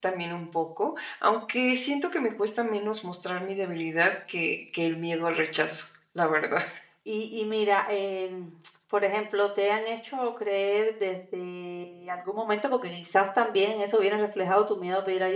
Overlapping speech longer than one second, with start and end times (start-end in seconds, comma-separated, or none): none